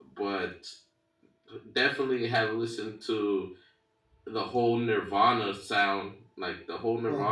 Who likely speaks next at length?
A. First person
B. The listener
A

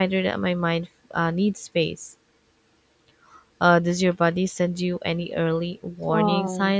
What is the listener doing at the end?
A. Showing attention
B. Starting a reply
B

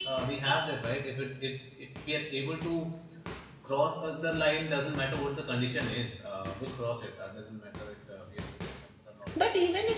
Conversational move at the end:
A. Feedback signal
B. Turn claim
B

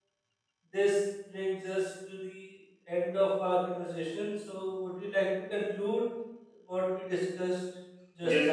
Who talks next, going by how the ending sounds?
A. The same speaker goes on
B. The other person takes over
B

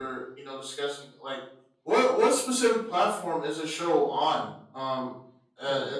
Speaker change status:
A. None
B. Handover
A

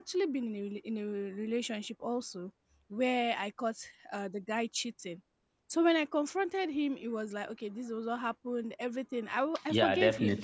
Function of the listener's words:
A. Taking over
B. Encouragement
B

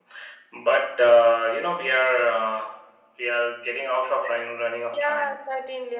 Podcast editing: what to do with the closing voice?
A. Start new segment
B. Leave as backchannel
A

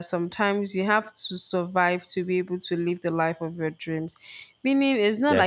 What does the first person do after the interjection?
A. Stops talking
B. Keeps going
B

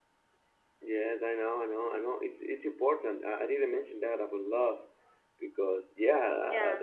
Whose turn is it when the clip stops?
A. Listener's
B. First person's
B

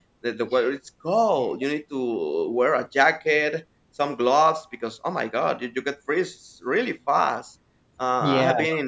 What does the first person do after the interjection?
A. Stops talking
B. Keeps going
B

